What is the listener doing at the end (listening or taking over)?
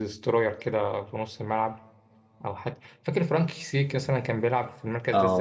taking over